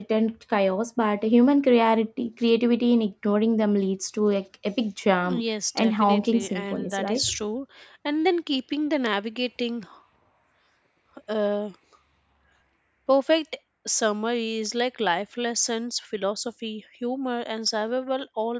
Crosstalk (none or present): present